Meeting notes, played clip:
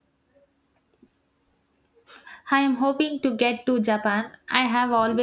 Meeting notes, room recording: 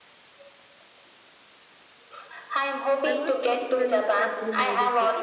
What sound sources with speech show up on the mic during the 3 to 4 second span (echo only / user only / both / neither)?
both